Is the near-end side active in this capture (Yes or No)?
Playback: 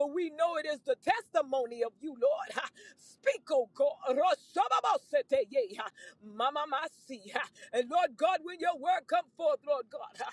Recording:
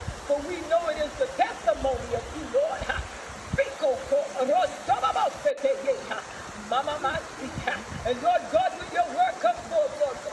No